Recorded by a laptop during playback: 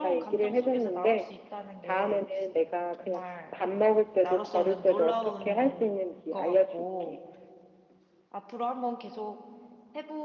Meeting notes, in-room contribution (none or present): present